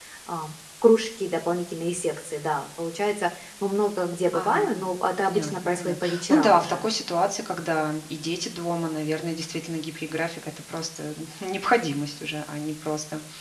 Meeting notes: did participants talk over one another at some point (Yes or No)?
Yes